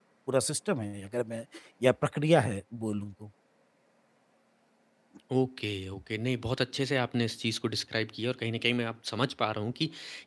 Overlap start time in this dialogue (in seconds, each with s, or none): none